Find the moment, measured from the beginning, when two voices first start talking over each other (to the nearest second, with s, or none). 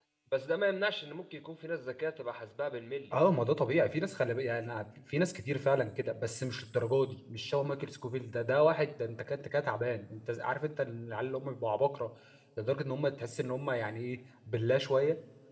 none